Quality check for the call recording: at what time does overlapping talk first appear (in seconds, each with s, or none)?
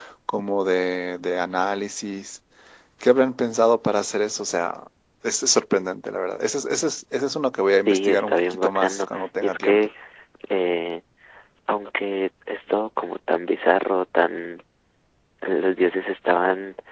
7.8 s